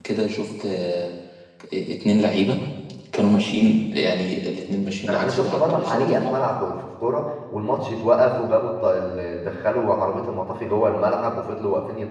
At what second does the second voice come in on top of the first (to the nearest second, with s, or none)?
5 s